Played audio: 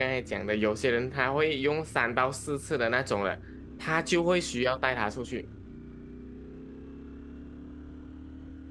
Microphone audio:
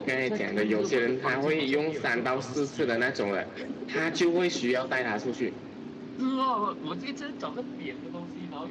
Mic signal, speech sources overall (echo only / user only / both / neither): both